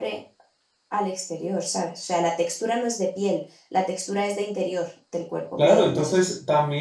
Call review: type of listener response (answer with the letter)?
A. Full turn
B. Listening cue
A